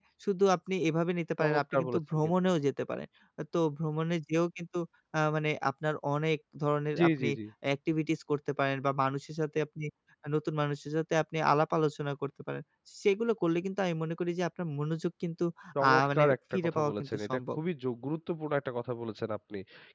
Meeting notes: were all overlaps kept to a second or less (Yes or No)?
No